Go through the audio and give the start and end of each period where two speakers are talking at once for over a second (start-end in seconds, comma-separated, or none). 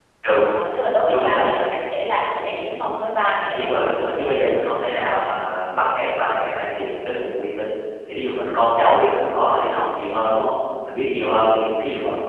3.6-5.4